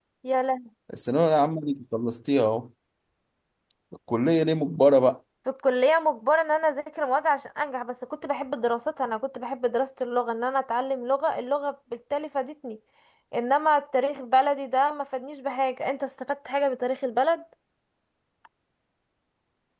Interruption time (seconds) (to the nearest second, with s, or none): none